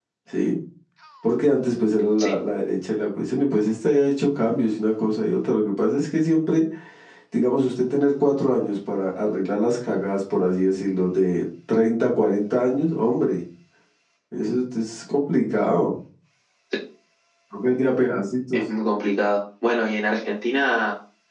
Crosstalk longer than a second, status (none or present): none